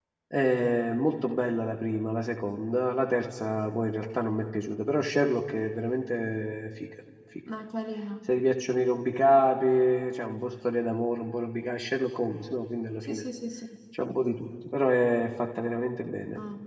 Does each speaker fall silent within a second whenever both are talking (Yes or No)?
Yes